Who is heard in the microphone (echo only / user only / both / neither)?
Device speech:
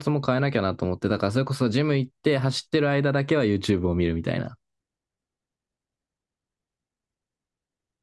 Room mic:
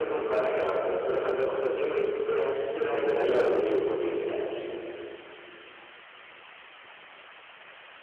both